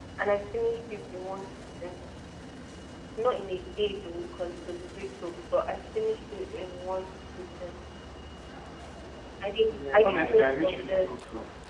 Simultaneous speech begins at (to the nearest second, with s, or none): 10 s